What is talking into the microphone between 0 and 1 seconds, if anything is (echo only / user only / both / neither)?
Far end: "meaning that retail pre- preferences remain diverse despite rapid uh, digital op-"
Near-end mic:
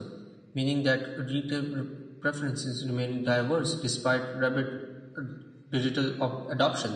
echo only